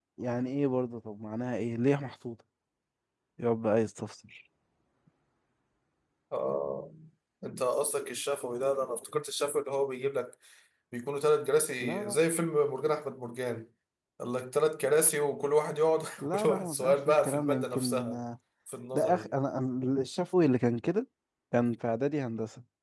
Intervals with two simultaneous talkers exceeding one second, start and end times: 16.2-18.1

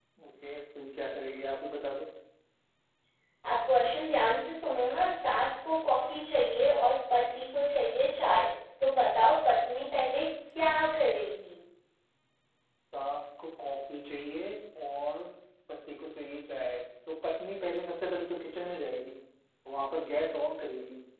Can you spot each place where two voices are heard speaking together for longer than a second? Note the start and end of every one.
none

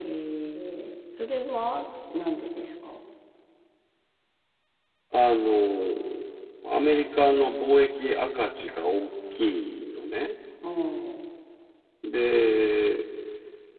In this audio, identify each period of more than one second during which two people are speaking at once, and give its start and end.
none

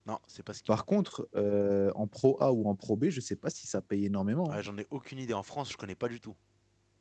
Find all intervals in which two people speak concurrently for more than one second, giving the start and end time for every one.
none

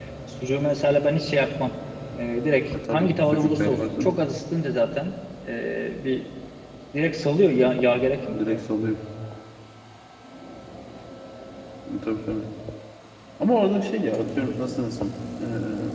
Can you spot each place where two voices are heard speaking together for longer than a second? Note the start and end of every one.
2.9-4.2

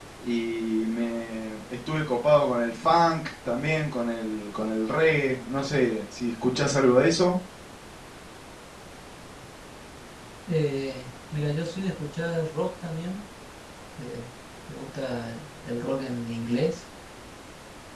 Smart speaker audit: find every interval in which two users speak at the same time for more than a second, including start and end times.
none

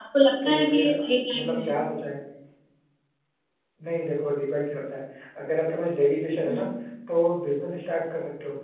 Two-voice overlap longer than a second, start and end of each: none

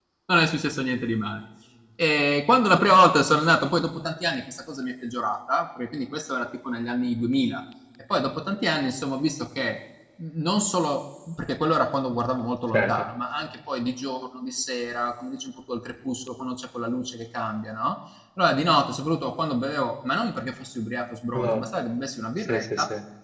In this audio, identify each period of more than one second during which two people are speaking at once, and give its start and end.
none

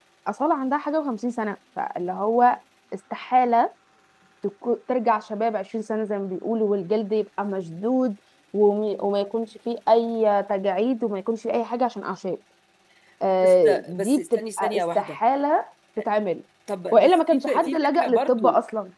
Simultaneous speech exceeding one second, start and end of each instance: 13.4-15.2, 16.9-18.4

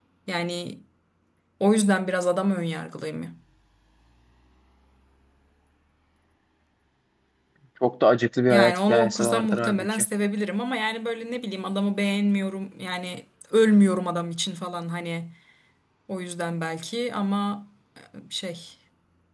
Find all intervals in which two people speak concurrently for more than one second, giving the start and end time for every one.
8.5-10.1

